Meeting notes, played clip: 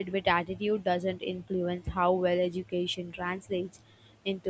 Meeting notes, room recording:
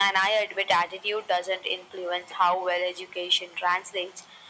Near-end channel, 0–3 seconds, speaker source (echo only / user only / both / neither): echo only